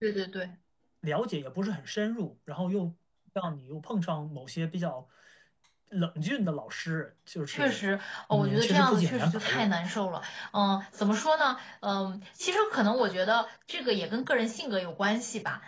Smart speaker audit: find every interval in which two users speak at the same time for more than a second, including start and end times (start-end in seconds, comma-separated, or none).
8.3-9.7